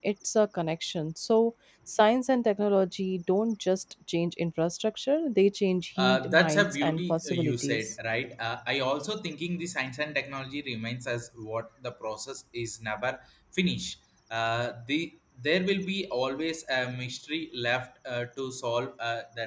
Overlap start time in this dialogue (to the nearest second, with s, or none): 6 s